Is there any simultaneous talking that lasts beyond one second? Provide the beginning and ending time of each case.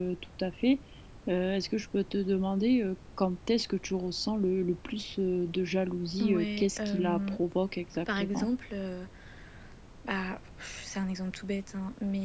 6.2-7.4

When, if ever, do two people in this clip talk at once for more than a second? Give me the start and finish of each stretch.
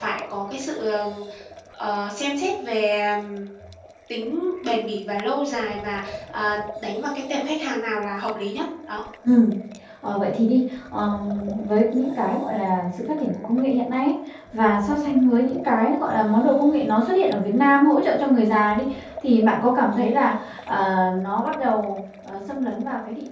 none

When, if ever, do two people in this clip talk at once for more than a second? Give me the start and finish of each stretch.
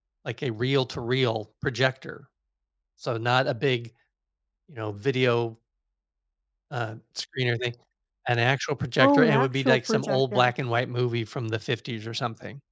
9.0-10.5

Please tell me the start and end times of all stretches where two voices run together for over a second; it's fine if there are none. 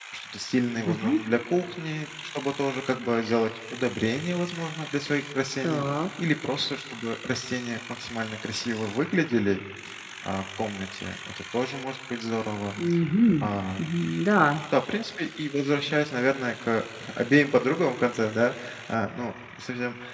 none

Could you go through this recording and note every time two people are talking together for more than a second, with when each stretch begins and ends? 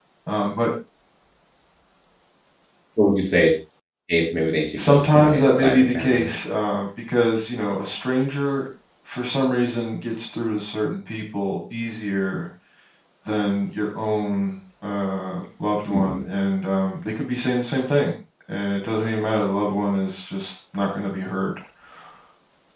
4.8-6.3

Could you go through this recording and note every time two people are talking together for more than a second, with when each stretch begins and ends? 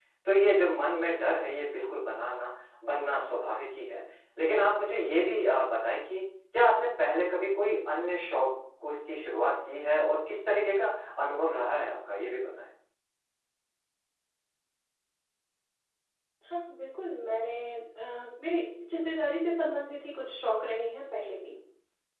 none

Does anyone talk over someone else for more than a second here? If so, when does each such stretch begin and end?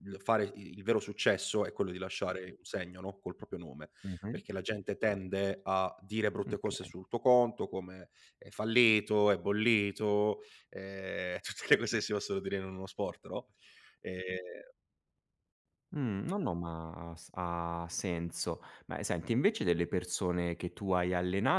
none

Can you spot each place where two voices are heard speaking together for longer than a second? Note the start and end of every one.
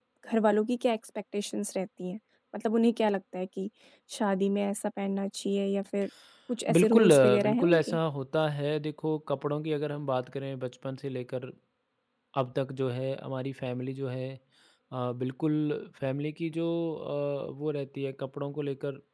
6.7-8.0

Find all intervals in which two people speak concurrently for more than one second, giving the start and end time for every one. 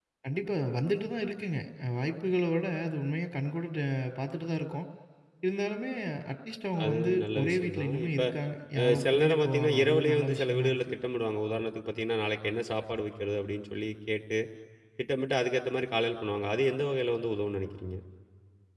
6.8-8.2, 8.8-10.9

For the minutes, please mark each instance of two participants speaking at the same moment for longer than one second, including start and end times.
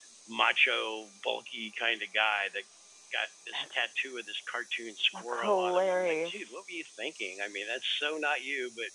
5.1-6.6

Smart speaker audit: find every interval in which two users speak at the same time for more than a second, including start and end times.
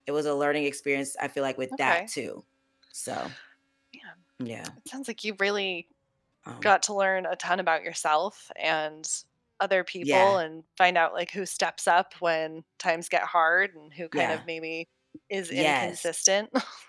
none

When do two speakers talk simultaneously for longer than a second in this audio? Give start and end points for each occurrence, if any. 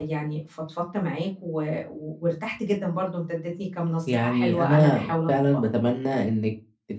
4.1-5.6

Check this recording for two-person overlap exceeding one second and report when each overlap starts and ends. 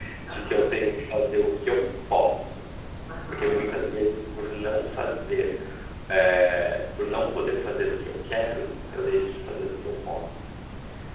none

